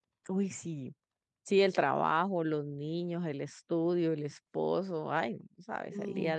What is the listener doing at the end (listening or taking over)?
taking over